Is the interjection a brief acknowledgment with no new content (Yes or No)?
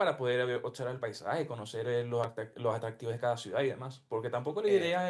Yes